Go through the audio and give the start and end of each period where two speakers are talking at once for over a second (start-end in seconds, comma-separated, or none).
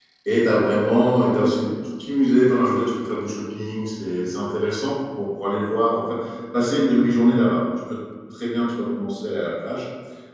none